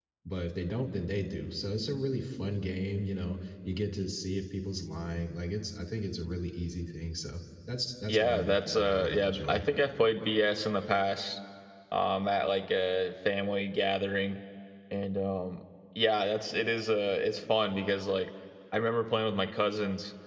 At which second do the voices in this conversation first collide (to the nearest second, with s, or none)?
8 s